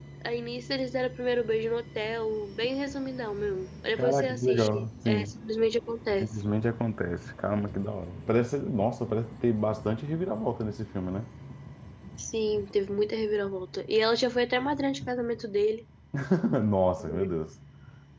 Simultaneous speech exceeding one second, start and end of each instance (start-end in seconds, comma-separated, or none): 4.0-5.3